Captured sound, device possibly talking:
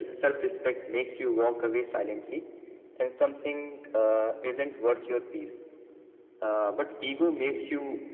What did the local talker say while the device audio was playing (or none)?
none